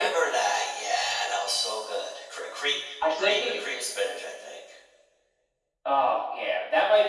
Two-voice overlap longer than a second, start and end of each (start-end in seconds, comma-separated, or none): none